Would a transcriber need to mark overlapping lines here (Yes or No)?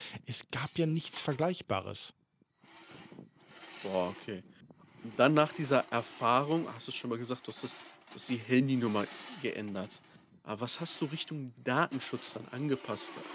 No